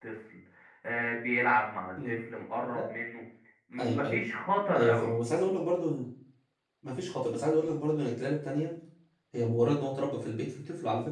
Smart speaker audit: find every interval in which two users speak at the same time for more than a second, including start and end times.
none

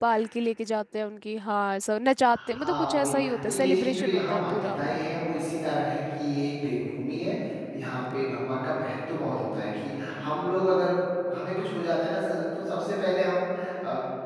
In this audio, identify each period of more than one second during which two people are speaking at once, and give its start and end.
2.3-4.8

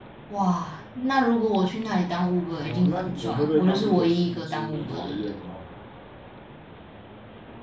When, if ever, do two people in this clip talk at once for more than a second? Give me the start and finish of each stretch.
2.5-5.3

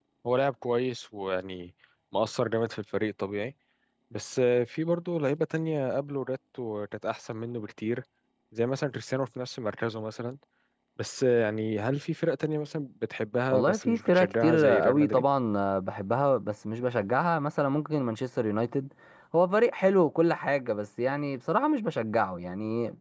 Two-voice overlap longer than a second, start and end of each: 13.5-15.2

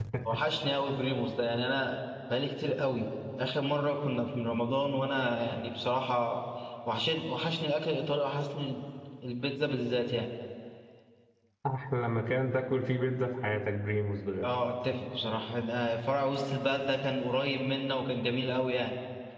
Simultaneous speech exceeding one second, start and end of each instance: none

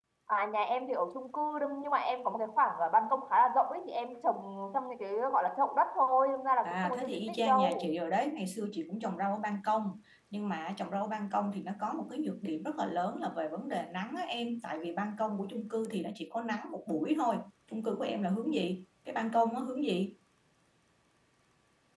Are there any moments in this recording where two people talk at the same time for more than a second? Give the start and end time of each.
6.6-7.9

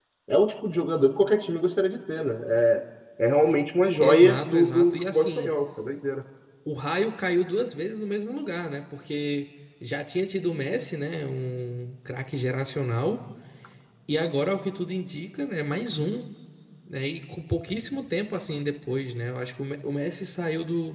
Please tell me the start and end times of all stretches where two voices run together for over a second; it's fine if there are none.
4.0-5.5

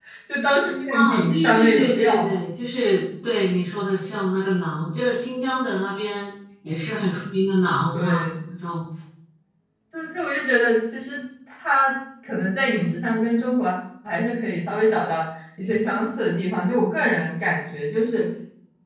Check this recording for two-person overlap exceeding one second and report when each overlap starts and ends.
0.9-2.4

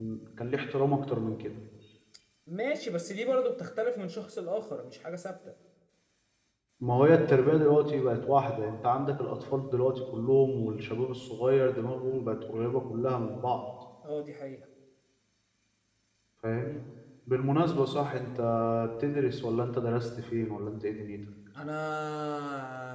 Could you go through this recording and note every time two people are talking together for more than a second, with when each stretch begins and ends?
none

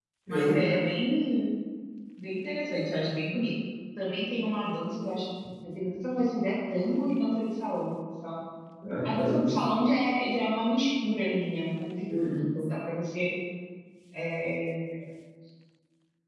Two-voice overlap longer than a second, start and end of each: none

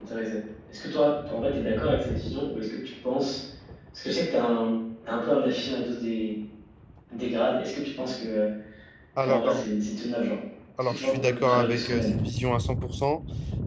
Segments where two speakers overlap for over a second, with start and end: 10.8-12.2

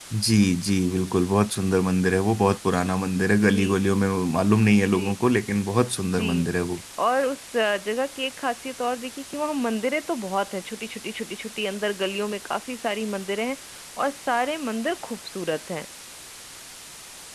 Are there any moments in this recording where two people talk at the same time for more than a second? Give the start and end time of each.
none

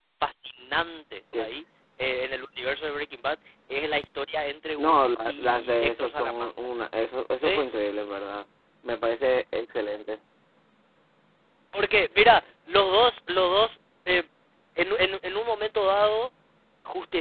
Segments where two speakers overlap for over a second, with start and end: 4.8-6.5

